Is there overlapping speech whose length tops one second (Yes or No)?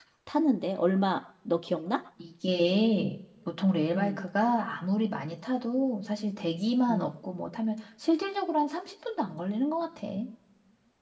No